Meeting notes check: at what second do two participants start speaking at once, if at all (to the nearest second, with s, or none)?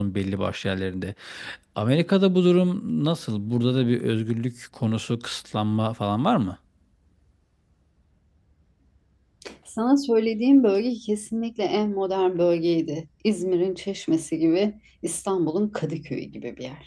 none